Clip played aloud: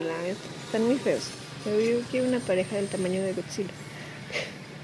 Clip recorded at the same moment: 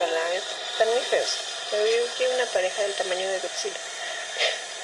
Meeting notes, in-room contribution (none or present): none